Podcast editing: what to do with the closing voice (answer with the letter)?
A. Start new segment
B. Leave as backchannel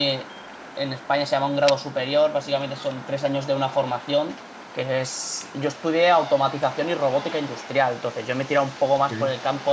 B